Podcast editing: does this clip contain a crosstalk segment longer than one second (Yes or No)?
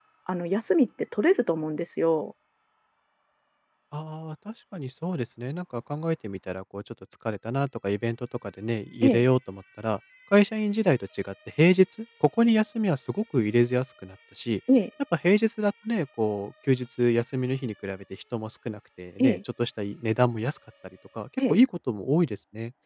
No